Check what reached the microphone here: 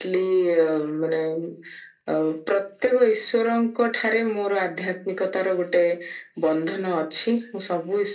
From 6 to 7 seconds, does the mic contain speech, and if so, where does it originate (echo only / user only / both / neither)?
echo only